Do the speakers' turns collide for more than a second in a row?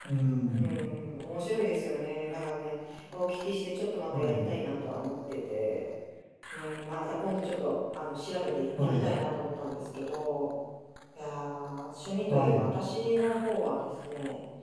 No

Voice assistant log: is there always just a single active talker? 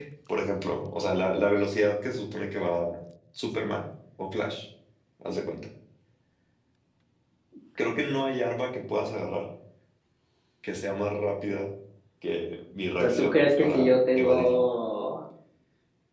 No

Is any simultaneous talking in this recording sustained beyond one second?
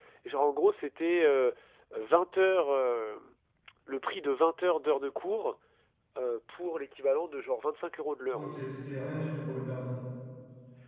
No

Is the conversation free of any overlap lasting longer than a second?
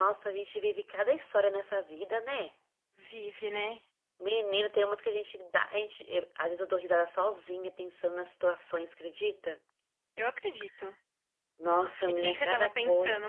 No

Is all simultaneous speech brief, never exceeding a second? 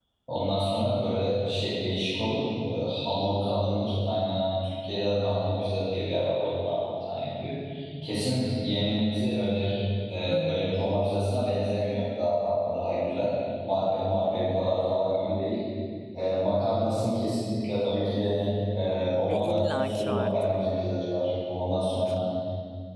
No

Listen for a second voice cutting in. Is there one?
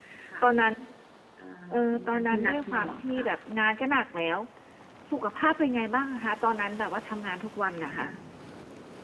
Yes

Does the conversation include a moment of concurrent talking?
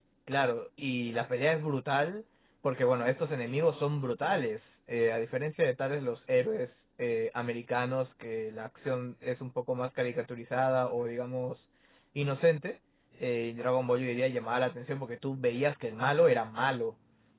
No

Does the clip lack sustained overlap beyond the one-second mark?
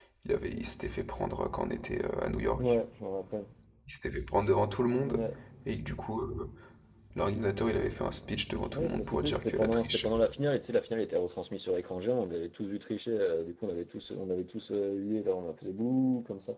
No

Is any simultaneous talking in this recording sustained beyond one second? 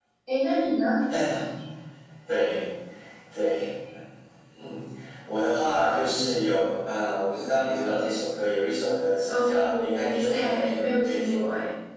Yes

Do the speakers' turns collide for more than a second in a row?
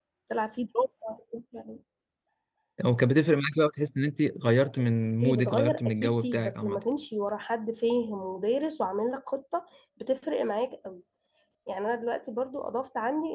Yes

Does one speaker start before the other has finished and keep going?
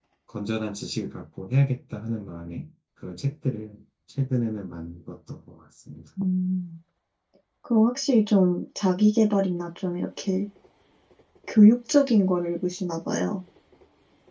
No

